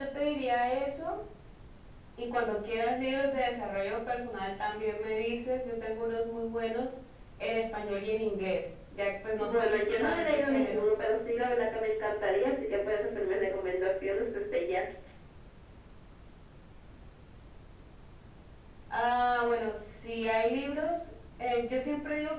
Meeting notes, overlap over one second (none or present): present